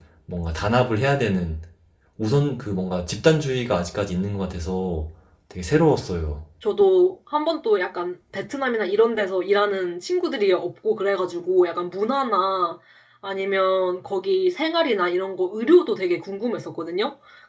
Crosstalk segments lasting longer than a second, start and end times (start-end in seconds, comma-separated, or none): none